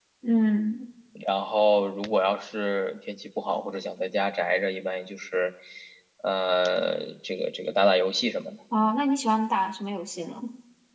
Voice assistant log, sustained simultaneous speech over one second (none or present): none